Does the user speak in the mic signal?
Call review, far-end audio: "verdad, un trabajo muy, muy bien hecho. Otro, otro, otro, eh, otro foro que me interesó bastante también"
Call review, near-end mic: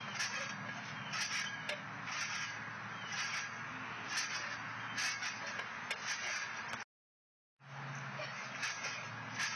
No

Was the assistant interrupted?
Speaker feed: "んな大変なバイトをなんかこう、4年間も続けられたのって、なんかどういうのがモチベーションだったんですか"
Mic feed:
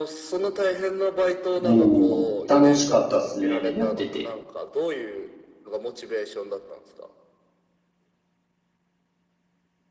Yes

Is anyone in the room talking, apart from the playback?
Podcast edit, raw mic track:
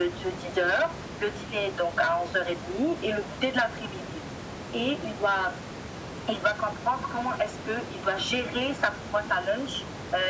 No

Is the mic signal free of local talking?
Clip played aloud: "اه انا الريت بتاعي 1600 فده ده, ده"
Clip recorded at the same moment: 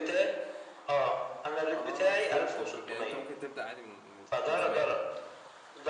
No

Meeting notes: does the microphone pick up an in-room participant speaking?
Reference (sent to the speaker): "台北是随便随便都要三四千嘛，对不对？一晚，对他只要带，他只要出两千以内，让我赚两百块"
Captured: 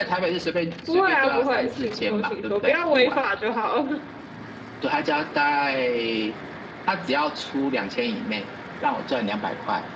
Yes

